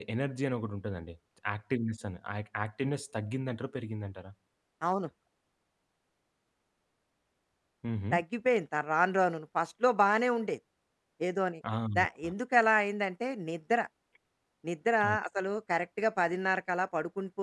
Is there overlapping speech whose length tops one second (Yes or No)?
No